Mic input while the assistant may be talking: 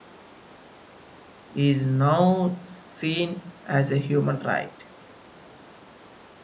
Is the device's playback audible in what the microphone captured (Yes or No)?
No